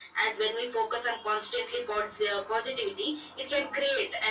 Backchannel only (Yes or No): Yes